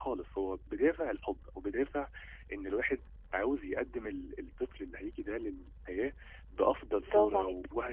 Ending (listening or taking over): listening